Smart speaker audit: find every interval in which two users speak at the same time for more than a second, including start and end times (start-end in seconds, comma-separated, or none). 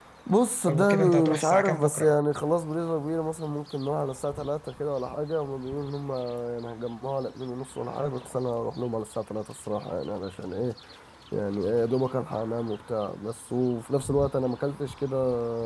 0.7-2.1